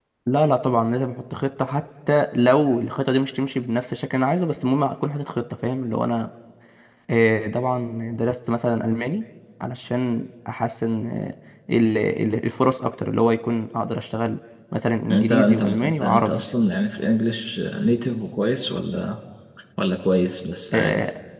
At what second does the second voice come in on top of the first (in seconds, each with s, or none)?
15.1 s